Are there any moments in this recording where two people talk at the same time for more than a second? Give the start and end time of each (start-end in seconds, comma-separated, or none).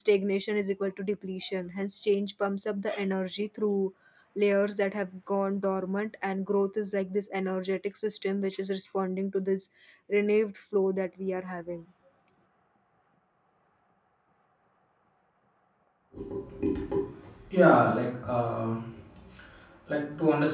none